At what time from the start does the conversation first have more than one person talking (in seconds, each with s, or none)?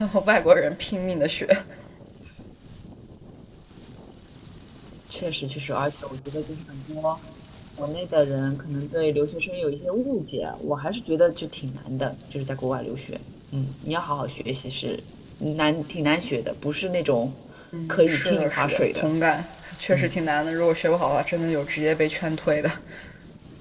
17.9 s